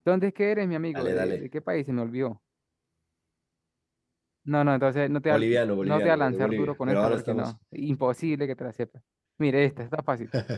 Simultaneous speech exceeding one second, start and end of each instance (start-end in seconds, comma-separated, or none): 5.3-7.5